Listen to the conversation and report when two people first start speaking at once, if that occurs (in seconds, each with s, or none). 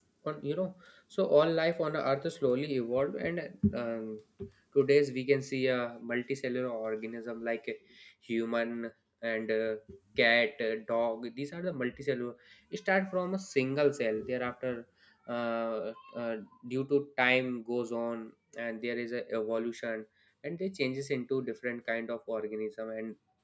none